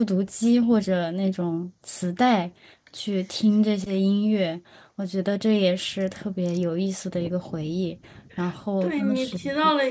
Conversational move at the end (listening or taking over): taking over